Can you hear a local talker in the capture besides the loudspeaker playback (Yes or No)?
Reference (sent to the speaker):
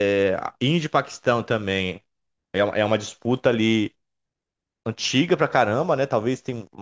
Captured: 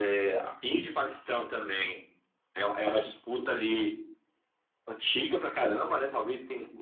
No